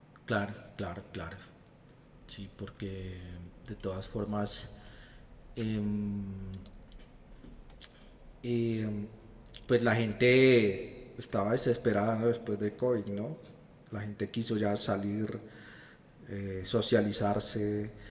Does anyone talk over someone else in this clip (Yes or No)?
No